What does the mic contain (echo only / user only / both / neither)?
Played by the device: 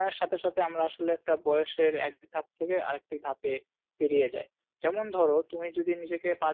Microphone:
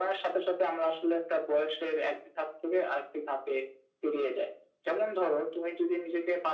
echo only